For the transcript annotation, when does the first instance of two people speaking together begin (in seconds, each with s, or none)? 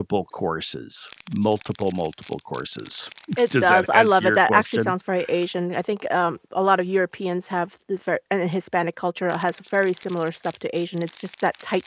3.6 s